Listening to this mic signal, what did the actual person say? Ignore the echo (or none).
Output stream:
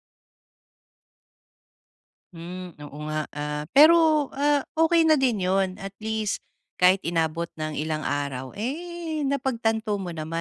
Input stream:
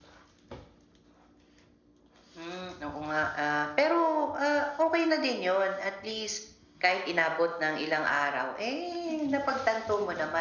none